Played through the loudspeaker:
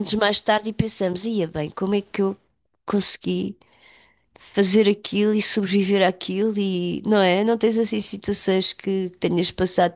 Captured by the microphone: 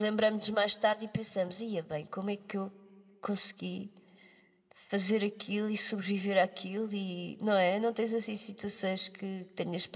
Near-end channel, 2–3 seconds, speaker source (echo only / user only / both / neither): echo only